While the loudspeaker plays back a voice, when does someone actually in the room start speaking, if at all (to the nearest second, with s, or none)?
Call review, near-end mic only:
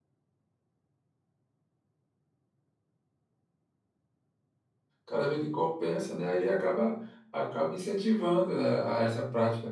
5 s